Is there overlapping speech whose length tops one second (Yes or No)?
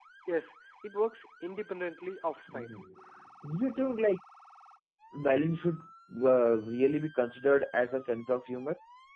No